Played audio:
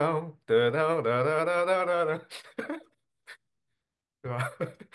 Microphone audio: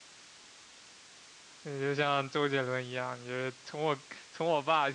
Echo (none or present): none